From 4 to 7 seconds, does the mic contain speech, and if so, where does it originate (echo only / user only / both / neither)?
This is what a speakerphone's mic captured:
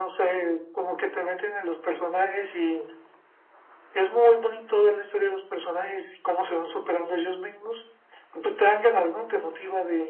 echo only